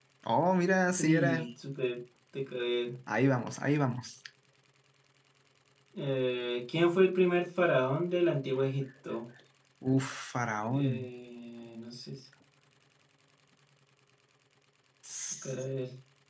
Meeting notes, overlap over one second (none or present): none